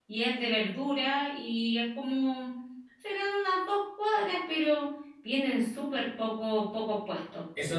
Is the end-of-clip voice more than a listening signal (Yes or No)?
Yes